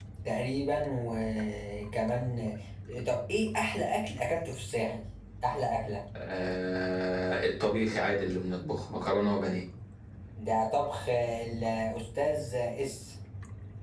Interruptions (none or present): none